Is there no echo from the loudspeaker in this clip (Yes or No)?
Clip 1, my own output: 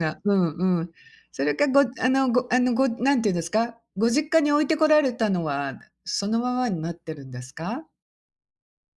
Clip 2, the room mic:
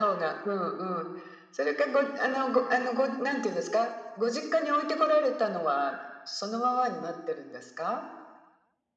No